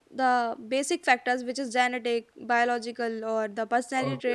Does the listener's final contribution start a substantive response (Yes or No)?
Yes